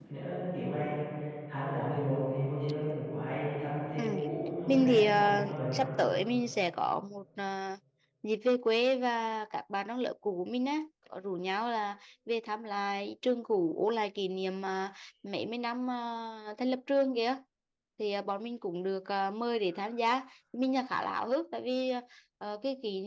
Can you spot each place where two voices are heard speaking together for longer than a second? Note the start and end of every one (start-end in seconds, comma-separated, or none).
4.7-6.0